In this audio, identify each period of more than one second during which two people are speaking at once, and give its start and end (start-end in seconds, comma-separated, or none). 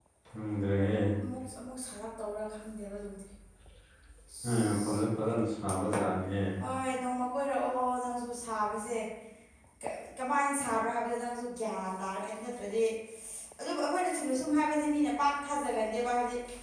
none